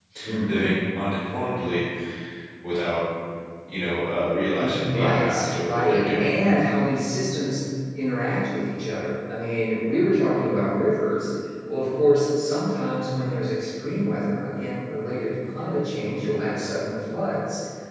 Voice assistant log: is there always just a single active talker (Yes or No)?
No